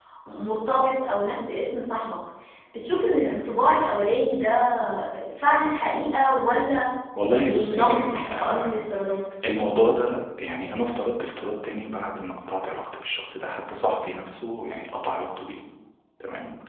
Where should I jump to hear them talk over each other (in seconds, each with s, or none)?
7.4 s